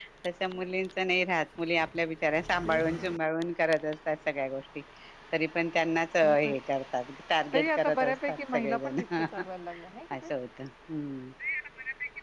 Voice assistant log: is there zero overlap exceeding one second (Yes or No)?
No